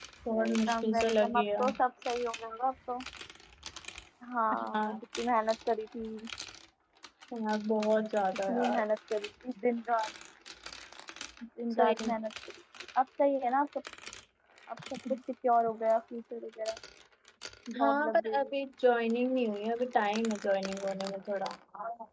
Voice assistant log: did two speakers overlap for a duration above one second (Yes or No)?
Yes